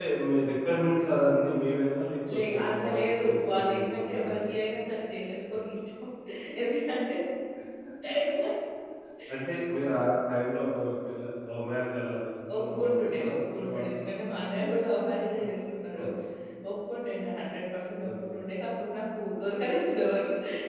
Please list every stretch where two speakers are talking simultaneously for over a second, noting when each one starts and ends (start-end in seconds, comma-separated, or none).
2.5-4.6, 12.6-14.1